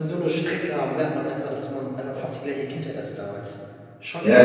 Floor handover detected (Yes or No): Yes